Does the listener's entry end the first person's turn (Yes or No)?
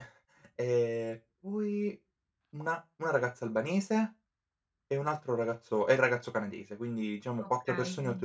No